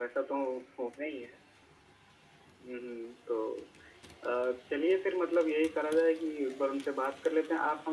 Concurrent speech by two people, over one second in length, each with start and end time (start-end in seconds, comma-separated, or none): none